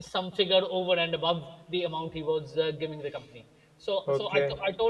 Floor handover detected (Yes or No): No